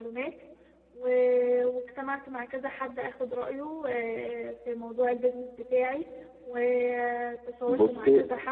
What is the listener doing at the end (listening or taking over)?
listening